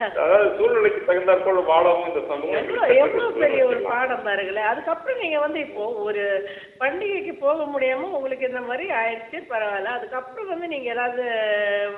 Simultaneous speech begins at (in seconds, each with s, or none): 2.6 s